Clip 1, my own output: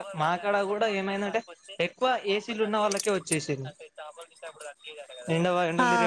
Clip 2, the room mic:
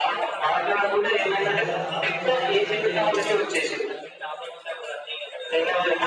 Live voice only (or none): అసలు గంత దారుణం సిచ్యువేషన్ అంటే ఈ